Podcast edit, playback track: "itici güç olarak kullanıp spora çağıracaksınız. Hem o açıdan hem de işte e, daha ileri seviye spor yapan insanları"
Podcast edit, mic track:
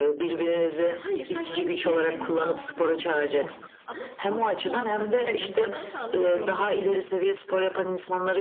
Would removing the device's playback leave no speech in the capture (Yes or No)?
No